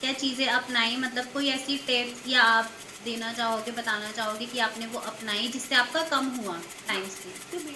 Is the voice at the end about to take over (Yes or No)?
Yes